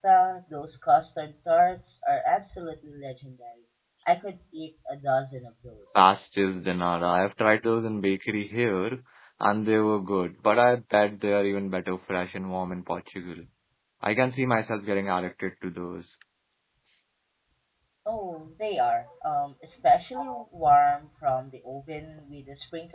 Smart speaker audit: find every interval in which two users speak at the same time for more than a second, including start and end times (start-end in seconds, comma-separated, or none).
none